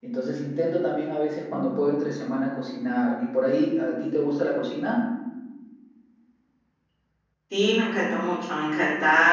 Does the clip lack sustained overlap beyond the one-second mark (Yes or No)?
Yes